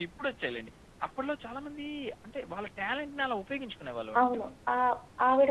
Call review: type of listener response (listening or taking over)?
taking over